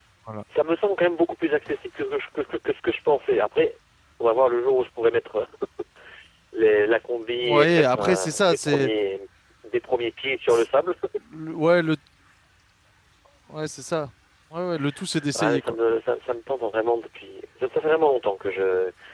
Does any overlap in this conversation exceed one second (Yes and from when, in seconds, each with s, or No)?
Yes, from 7.4 s